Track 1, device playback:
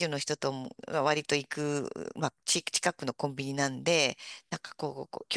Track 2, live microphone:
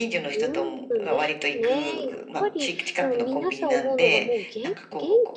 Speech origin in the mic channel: both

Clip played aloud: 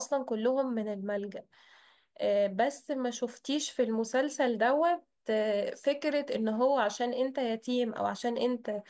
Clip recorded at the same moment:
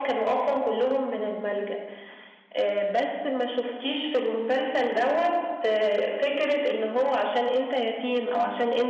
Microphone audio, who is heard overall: echo only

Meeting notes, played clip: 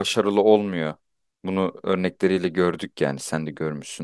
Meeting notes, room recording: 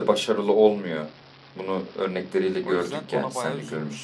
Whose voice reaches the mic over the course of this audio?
both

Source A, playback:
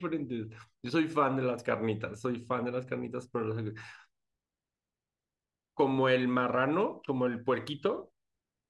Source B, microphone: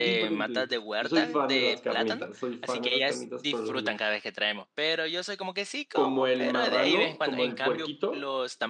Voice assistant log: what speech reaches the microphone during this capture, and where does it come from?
both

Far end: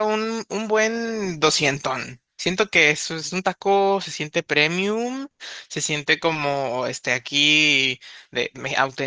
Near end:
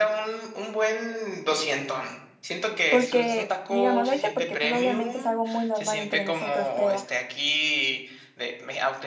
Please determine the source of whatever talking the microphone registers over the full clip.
both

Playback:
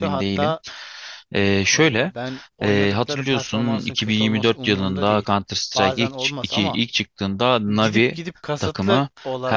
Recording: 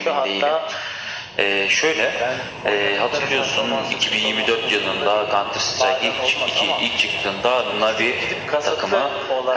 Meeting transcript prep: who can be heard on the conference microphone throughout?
echo only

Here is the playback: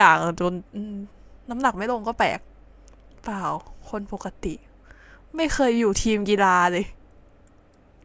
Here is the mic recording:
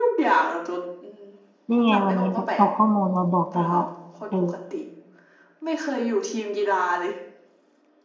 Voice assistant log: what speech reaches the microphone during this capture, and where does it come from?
both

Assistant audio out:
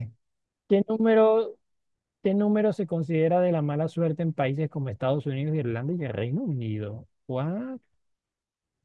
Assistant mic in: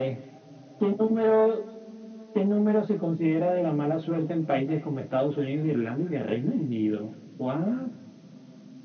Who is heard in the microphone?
echo only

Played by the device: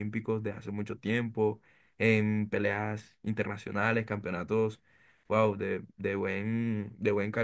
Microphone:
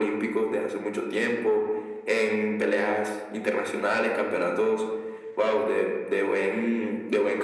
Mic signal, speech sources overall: echo only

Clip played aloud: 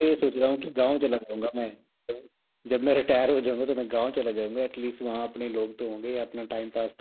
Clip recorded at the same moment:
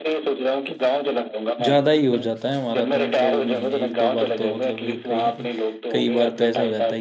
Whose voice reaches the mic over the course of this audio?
both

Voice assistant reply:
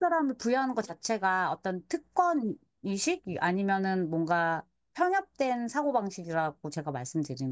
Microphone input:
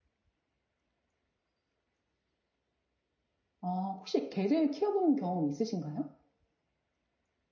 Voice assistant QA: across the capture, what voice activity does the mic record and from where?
user only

